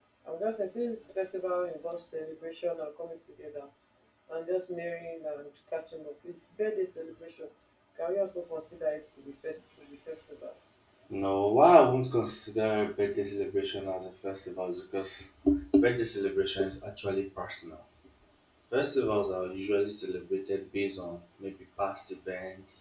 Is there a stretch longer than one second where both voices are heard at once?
No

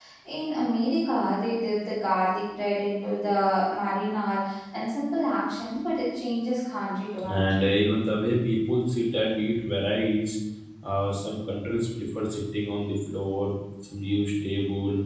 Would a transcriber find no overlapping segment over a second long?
Yes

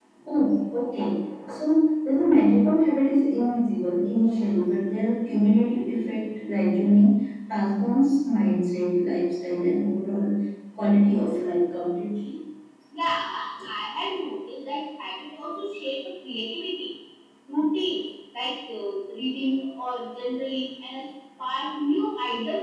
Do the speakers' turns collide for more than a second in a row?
No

